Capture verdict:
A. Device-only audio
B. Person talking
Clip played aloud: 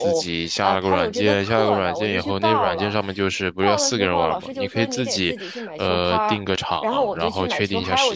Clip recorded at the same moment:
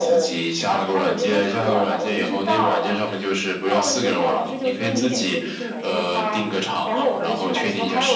A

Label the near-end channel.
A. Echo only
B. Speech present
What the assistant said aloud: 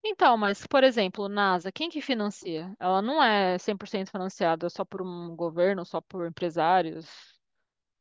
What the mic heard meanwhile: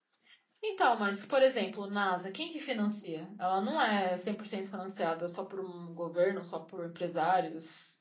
A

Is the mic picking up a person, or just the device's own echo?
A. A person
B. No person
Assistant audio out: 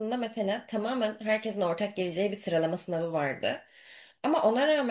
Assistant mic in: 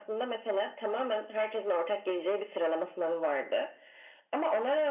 B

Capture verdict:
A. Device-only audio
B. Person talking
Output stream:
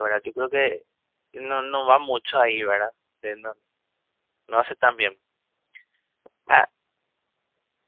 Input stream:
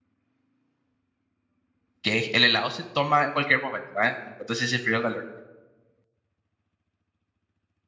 B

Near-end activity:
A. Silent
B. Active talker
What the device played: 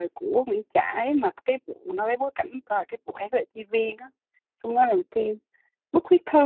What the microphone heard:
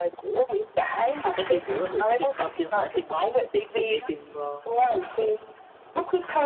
B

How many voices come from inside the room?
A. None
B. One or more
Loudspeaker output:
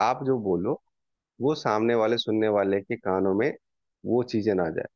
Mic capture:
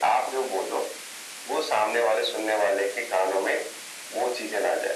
A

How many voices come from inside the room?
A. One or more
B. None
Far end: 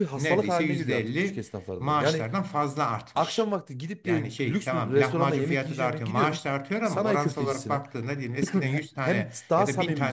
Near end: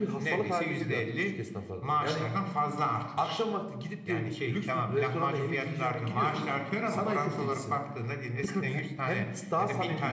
B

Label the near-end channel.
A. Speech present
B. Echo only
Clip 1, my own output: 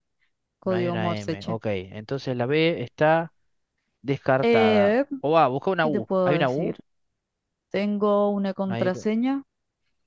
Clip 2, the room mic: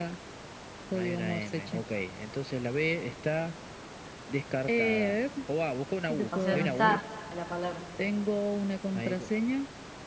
A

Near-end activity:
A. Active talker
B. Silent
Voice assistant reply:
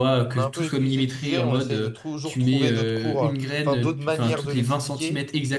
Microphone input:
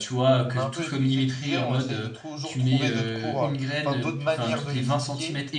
B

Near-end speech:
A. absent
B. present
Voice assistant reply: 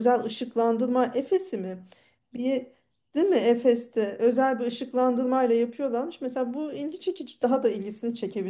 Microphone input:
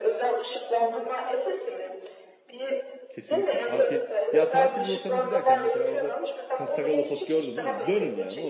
B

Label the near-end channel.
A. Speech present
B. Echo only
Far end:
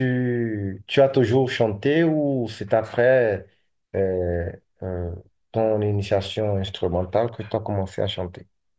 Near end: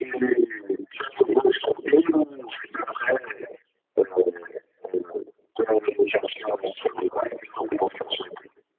B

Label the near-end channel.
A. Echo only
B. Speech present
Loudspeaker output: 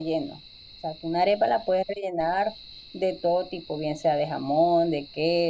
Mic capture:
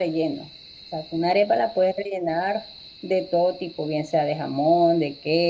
A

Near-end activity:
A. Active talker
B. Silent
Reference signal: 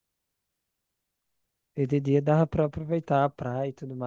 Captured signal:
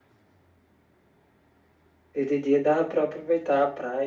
B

